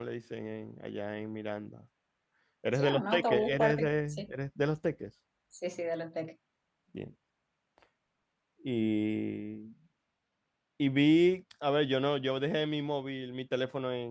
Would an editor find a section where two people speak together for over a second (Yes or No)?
Yes